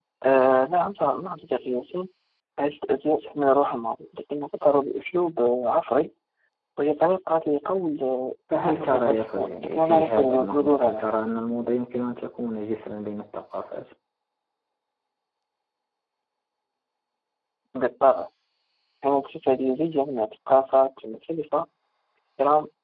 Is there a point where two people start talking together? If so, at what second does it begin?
8.5 s

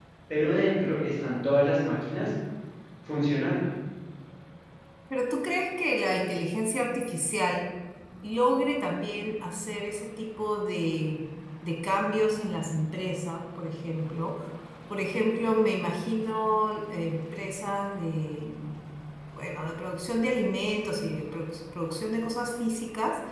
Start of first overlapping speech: none

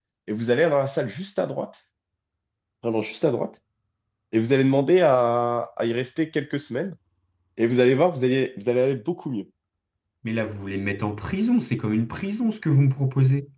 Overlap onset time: none

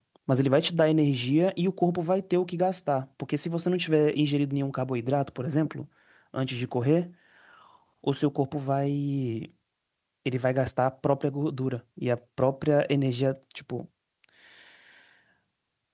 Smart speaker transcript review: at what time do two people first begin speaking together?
none

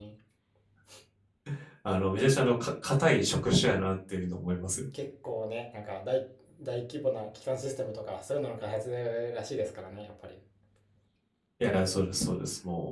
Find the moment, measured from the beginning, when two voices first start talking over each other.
none

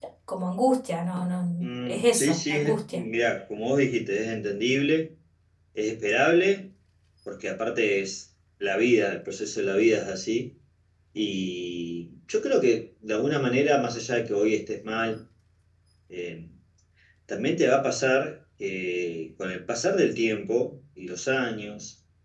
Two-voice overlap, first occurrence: 1.6 s

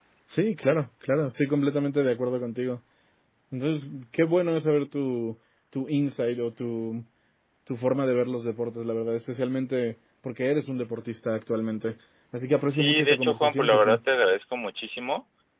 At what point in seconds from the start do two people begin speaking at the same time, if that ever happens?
12.7 s

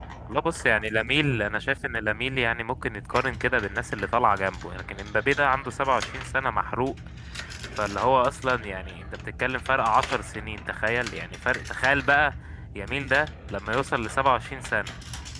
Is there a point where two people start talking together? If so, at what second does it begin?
none

